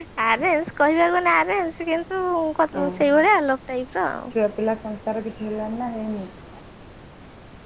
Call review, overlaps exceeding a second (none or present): none